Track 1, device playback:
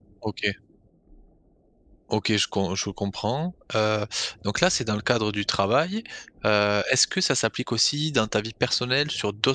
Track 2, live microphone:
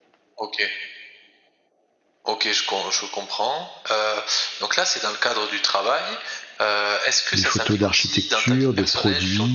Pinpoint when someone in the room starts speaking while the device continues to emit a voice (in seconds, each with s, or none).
7.3 s